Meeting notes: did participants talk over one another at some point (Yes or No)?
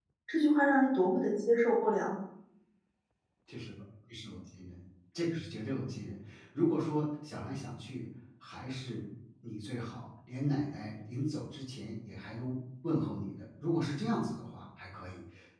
No